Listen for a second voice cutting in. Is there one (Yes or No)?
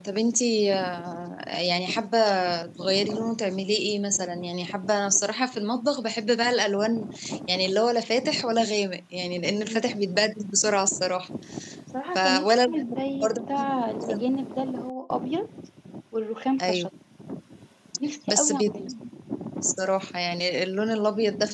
Yes